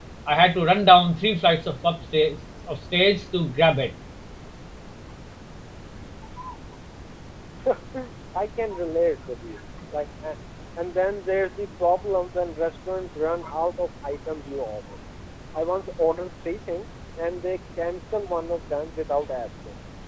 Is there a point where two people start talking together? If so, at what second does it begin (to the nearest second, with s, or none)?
none